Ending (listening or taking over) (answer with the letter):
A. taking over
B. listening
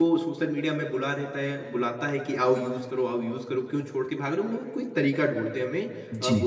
B